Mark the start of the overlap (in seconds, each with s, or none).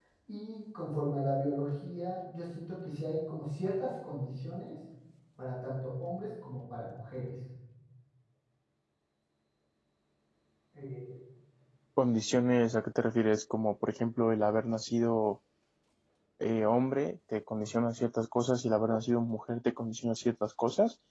none